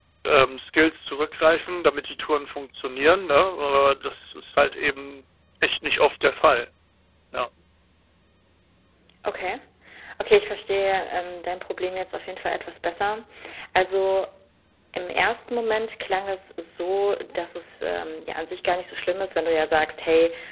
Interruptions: none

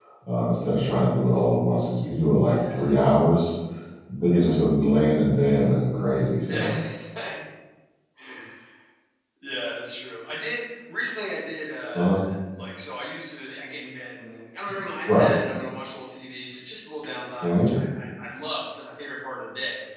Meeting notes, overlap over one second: none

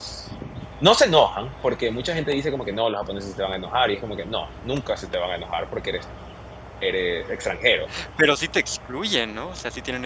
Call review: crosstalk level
none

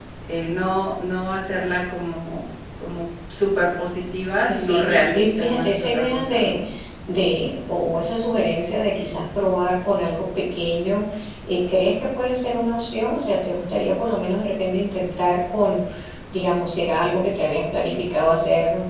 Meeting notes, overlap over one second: present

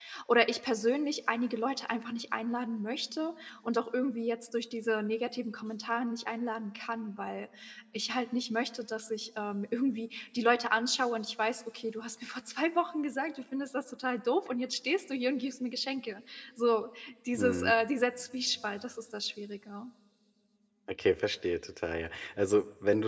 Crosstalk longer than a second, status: none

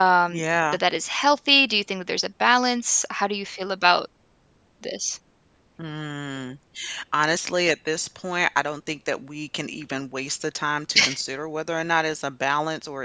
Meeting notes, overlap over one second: none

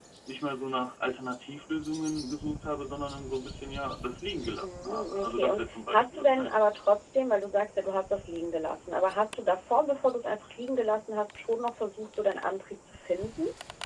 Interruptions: present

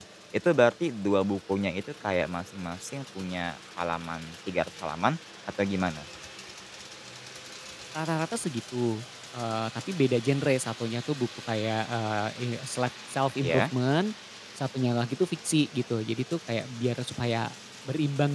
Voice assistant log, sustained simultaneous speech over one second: none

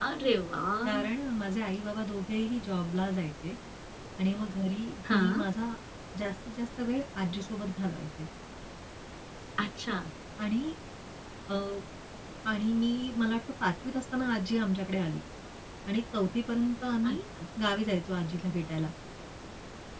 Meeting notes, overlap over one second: none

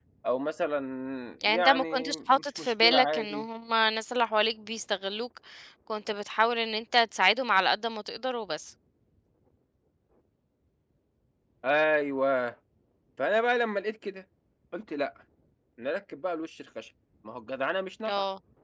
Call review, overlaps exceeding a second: present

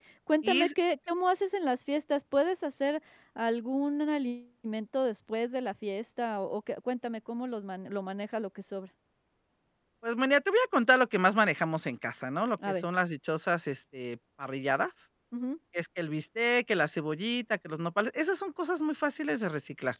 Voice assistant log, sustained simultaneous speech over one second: none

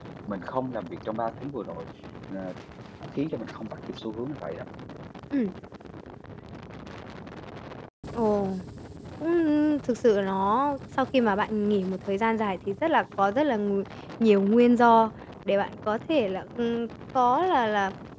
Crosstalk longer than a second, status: none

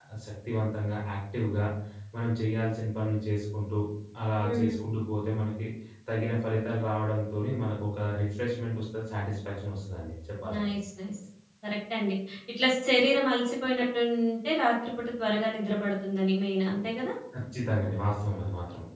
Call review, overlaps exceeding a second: none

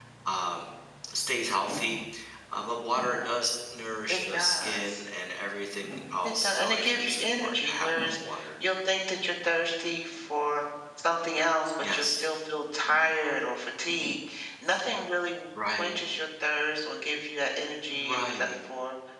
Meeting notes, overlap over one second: present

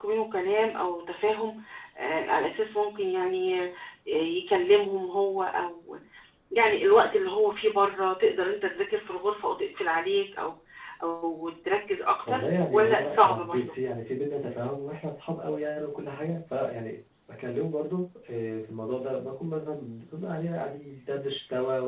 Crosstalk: present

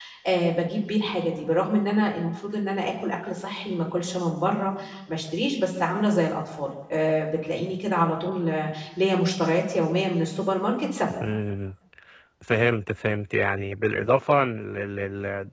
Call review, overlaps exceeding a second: none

